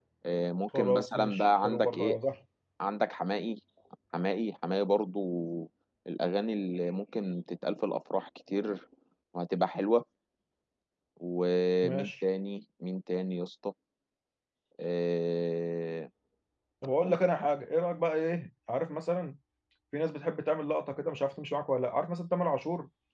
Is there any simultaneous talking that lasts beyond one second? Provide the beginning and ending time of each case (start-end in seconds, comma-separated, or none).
0.8-2.2